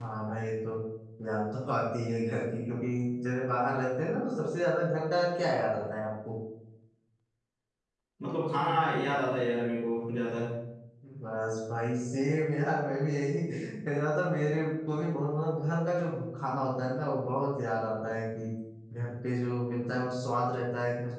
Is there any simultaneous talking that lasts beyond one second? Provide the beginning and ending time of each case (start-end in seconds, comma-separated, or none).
none